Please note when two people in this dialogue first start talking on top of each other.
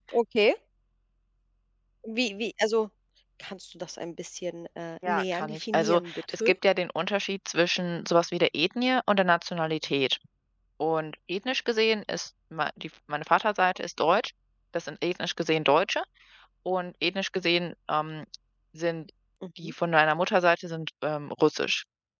5.0 s

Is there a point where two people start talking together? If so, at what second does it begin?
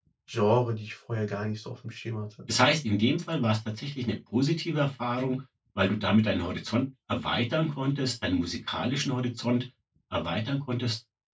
none

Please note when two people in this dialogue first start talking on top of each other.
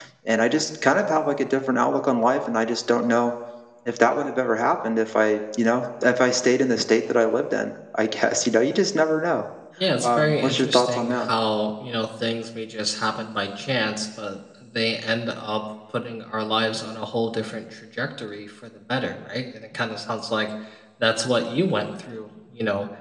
10.0 s

